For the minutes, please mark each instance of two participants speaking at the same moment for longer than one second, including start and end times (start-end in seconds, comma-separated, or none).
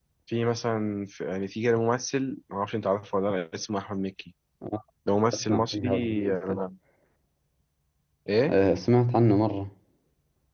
5.3-6.6